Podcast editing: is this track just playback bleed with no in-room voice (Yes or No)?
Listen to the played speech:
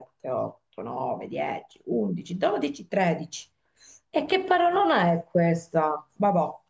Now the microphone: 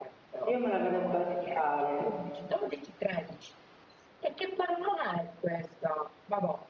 No